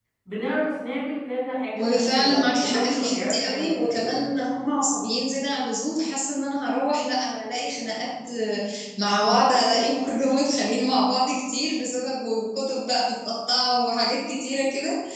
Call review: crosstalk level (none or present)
present